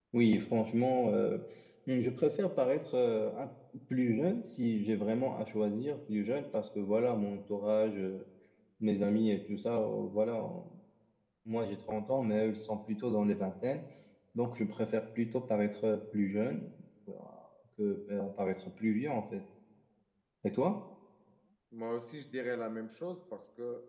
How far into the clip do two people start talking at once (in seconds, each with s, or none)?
none